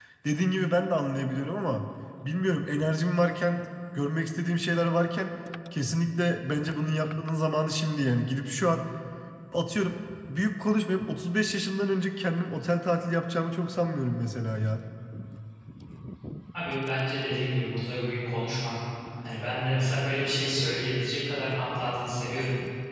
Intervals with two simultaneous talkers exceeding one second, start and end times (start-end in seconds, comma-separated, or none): none